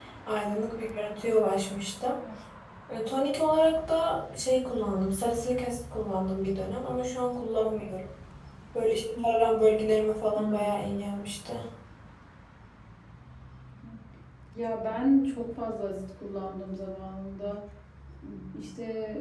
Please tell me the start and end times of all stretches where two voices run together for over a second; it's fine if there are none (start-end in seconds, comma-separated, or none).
none